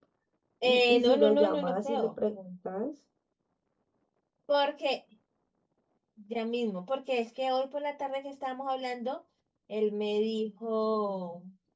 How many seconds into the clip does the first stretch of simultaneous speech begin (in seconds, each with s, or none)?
0.6 s